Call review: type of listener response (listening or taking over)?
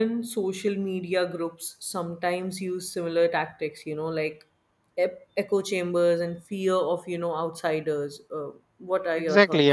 taking over